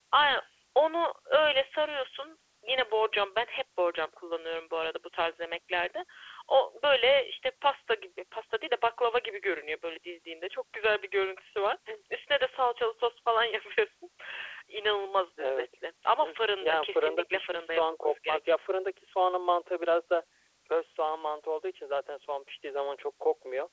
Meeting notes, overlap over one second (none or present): present